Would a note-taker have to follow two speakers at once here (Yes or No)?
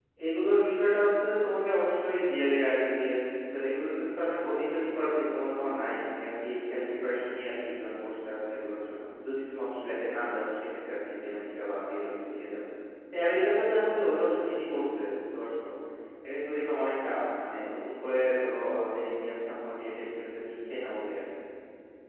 No